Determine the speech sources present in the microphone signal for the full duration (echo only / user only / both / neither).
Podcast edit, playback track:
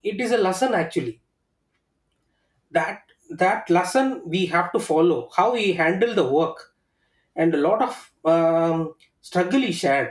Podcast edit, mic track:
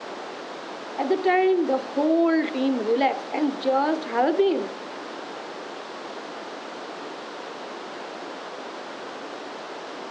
user only